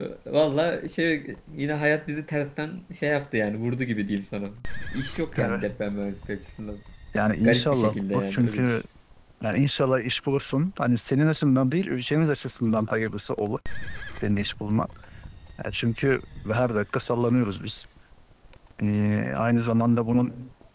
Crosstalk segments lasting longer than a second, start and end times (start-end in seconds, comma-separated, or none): 7.4-8.8